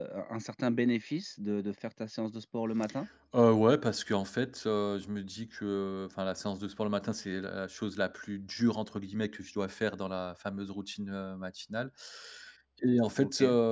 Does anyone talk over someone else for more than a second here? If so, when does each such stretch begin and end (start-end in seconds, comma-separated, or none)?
none